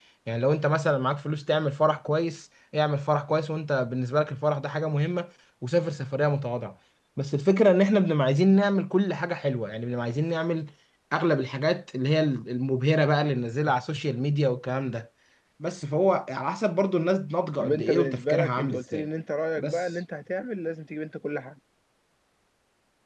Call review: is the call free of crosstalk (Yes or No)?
No